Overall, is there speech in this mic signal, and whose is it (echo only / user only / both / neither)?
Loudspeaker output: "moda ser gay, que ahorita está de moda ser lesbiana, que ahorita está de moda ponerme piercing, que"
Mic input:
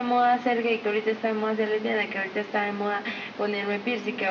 echo only